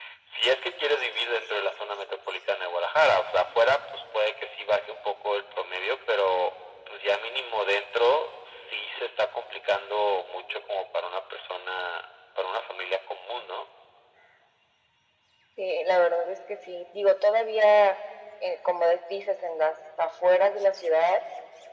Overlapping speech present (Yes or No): No